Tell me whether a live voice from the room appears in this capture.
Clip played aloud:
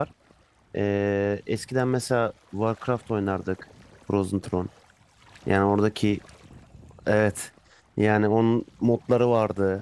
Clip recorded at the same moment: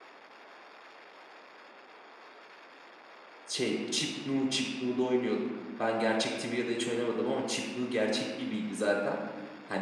Yes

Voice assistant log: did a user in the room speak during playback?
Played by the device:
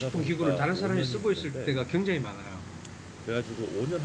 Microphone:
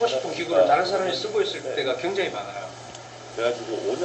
No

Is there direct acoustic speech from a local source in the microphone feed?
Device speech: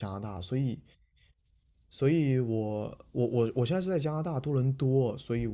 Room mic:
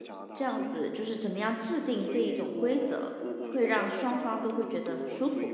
Yes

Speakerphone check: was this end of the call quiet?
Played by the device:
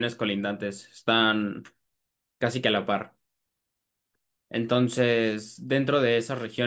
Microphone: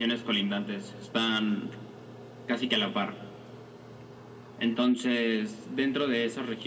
Yes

